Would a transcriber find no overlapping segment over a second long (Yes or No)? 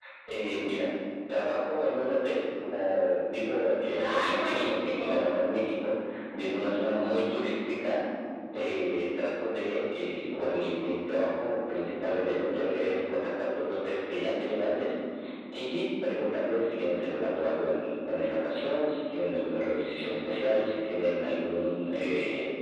No